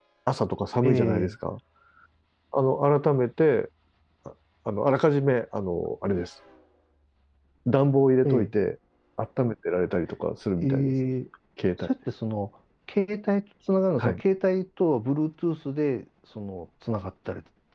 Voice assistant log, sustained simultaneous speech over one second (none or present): none